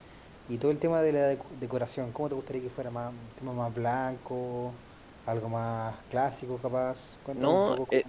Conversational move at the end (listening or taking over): taking over